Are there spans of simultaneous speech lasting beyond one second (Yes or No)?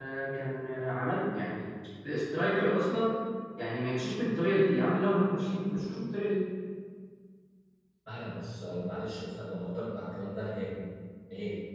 No